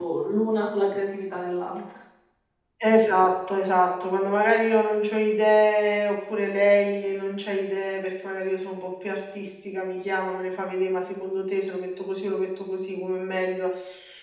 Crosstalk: none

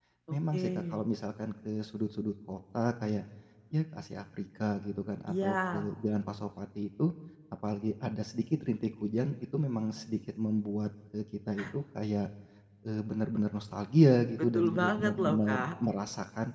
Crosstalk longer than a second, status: present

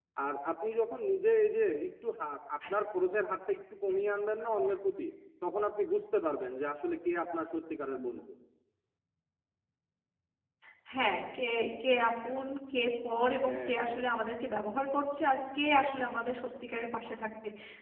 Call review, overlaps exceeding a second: none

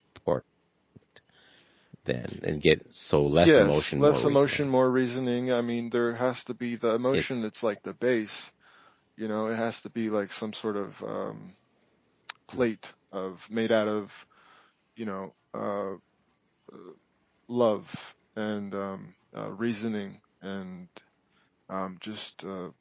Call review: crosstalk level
present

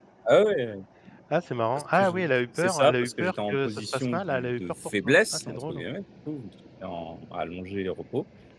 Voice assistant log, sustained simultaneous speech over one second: present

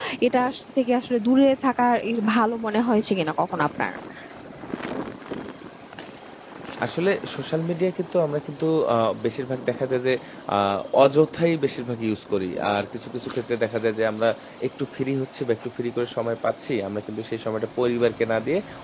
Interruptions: none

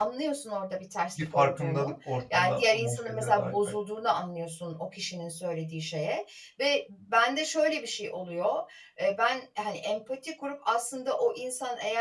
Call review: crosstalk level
present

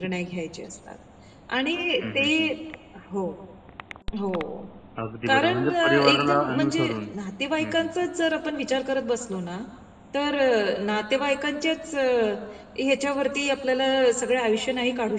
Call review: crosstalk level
present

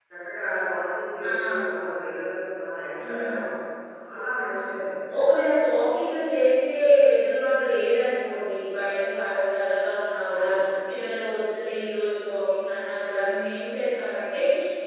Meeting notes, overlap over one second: none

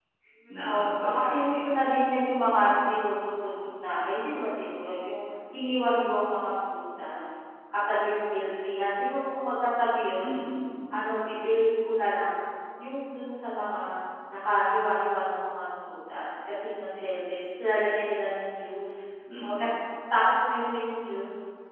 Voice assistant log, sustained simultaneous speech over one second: present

